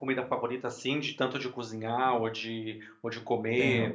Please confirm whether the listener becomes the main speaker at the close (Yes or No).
Yes